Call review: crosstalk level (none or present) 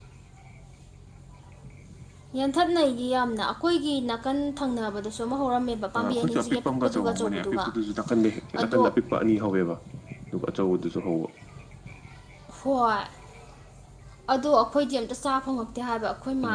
present